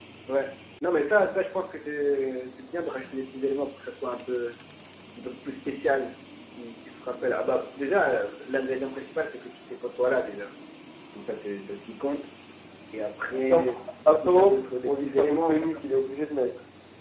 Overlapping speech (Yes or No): Yes